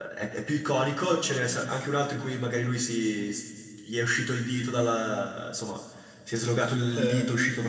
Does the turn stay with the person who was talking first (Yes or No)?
Yes